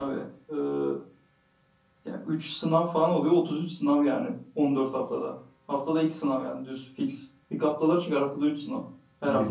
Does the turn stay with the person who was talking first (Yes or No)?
No